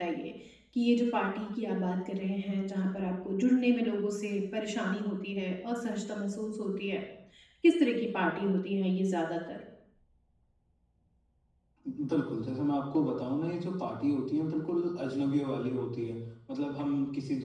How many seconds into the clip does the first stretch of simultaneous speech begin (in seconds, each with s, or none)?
none